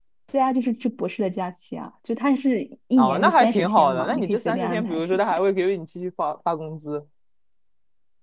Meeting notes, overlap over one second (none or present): present